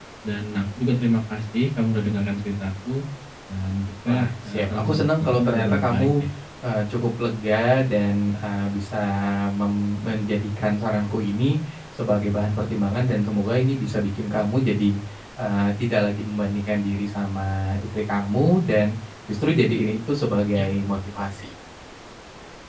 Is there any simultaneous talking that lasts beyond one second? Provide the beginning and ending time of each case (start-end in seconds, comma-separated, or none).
4.1-6.2